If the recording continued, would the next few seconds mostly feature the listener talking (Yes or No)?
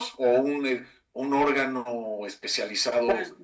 Yes